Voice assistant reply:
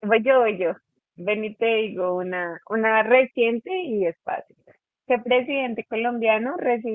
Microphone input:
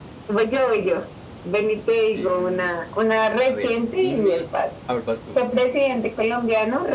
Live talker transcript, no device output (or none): Em, a ver, dime. A ver, vas tú.